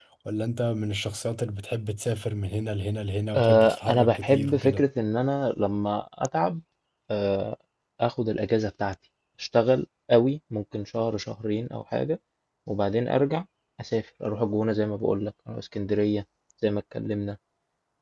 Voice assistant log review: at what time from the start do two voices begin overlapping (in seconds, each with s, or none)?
3.3 s